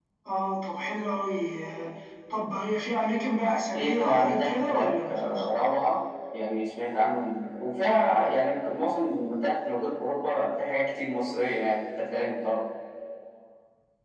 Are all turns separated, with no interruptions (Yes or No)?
No